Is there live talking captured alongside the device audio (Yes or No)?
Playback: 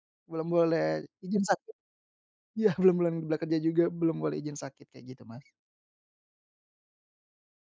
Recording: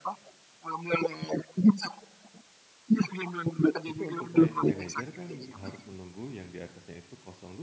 Yes